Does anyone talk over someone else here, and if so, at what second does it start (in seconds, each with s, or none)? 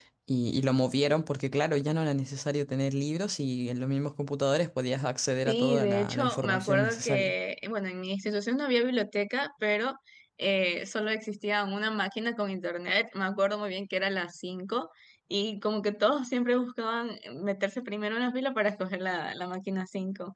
5.5 s